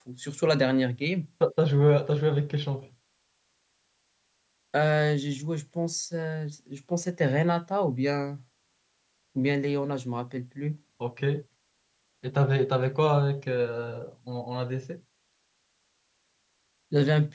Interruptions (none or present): none